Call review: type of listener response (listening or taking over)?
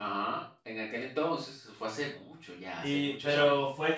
taking over